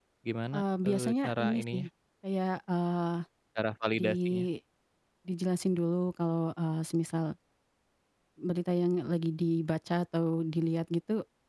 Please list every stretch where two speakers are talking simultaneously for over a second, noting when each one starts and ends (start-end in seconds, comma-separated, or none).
0.5-1.8